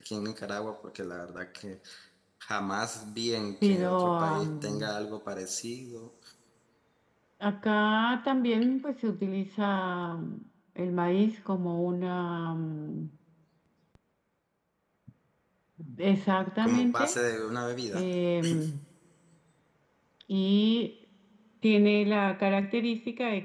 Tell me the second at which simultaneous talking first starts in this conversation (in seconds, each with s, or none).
3.6 s